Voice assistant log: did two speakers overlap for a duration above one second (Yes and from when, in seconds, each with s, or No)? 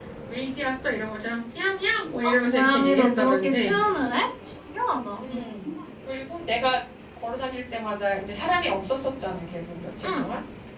Yes, from 2.2 s